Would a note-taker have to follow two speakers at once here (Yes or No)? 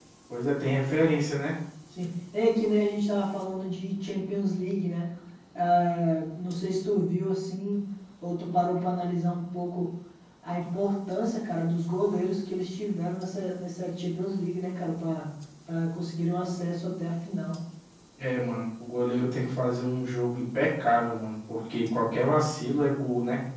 No